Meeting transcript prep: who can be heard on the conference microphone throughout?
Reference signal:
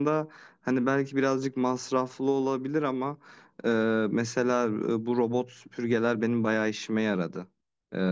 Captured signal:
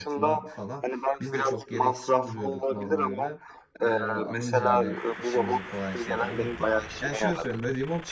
both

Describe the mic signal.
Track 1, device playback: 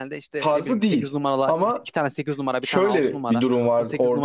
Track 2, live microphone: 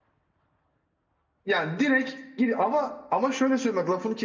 user only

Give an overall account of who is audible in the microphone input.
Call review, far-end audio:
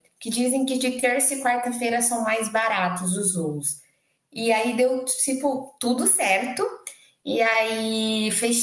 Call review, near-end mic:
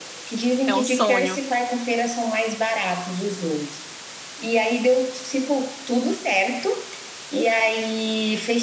both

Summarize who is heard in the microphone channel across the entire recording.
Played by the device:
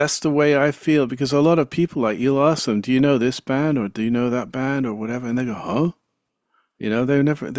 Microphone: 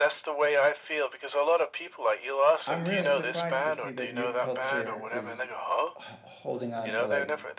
both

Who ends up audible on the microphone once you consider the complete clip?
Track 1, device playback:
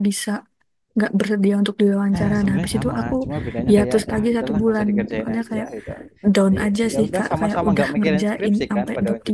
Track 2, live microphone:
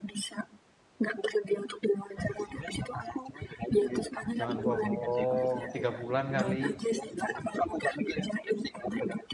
both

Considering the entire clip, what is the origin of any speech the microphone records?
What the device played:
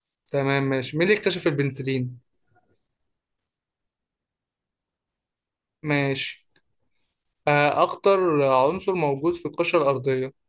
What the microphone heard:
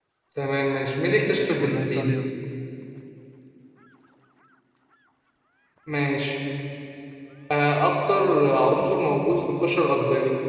both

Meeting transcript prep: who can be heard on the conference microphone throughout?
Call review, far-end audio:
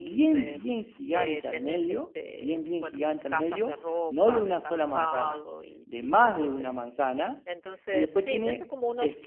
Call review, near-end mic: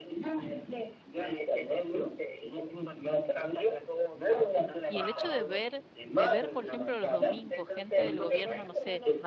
both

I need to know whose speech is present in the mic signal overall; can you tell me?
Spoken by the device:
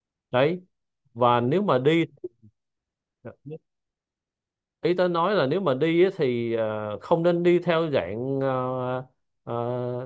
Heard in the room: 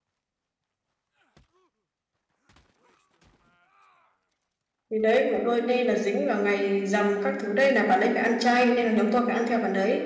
user only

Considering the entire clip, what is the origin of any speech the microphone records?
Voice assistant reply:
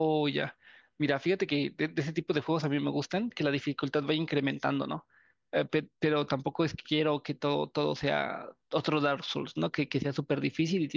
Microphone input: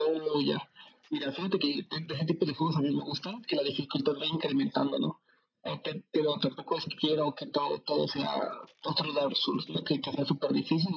echo only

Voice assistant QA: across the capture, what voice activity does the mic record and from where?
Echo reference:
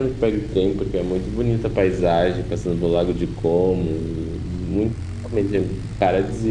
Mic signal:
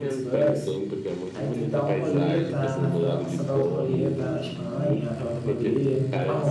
both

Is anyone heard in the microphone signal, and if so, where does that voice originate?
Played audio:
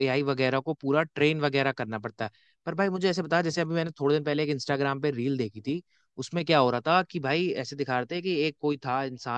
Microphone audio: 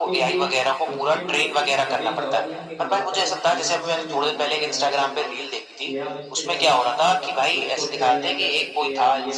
both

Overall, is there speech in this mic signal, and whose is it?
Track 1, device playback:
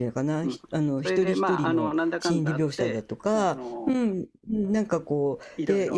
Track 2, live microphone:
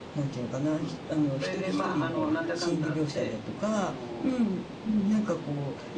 echo only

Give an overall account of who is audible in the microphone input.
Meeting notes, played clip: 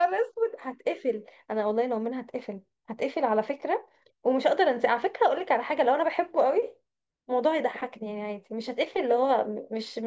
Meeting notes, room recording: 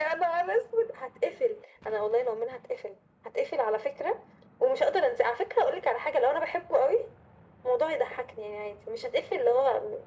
echo only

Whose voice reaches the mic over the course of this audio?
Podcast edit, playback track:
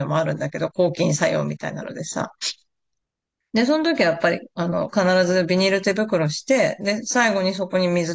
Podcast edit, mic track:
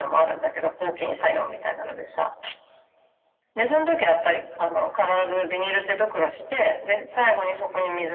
echo only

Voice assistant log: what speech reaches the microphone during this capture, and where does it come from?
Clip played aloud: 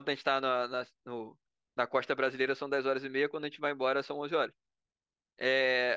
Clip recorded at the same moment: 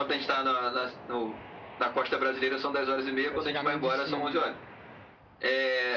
both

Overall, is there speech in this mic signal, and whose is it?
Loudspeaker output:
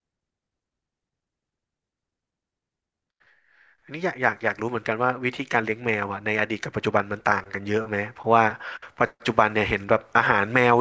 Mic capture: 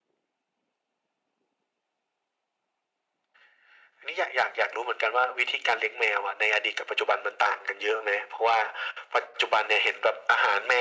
echo only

